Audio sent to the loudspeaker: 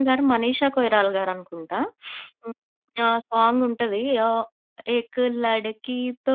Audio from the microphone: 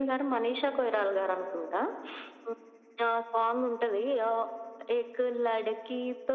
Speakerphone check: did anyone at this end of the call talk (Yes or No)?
No